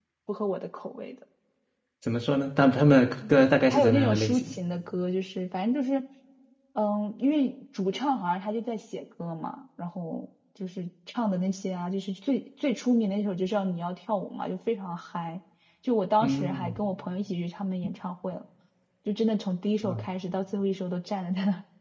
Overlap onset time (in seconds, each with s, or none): 3.3 s